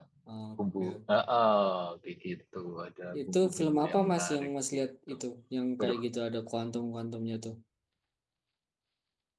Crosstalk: present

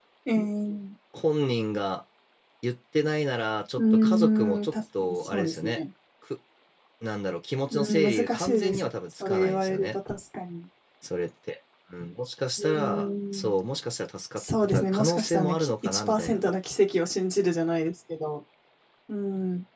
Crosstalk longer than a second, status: present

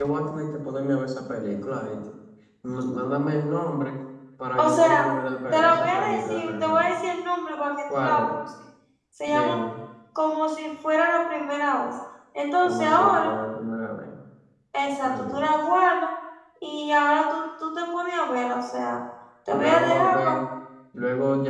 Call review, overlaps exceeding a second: present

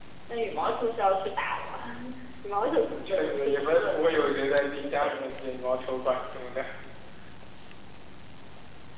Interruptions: present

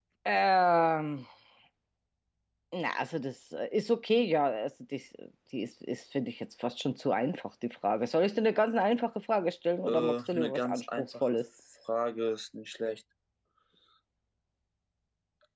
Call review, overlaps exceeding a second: present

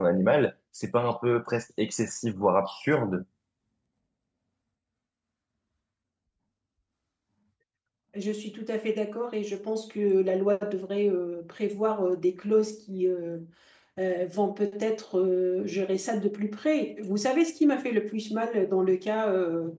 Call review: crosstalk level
none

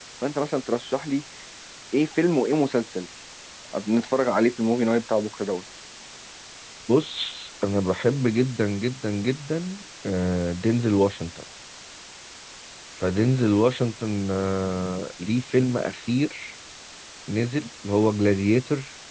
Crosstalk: none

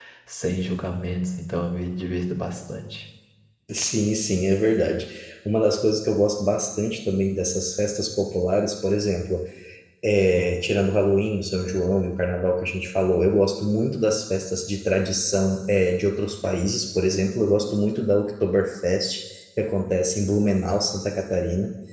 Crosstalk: none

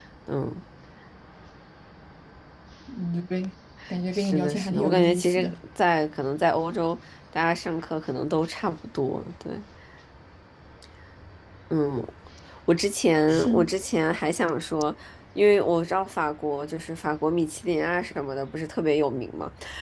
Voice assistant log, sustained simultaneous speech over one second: present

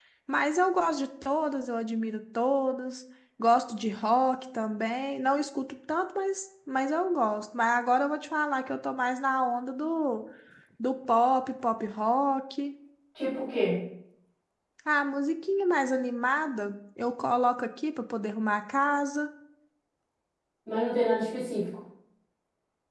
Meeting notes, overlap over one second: none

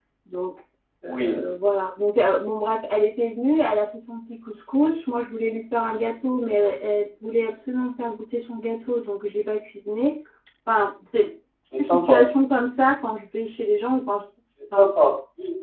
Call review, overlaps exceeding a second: none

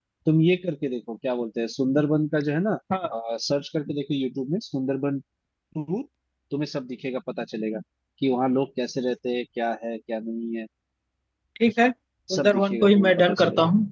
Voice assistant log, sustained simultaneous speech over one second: present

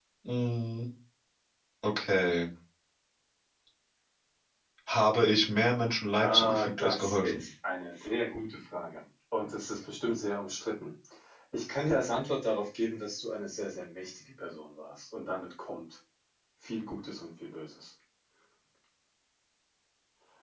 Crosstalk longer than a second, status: present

